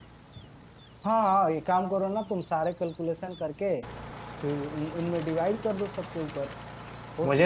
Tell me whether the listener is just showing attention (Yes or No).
No